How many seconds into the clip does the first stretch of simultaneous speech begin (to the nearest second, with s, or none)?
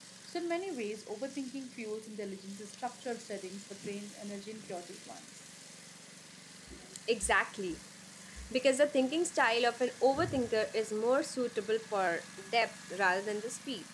none